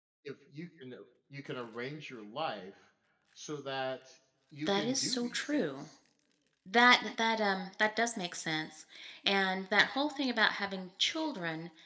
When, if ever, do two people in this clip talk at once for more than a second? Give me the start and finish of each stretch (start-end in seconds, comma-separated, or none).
4.6-5.9